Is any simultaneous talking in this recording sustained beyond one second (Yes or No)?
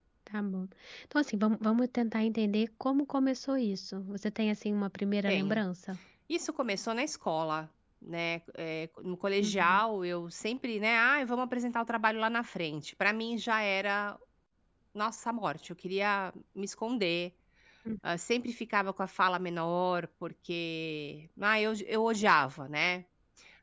No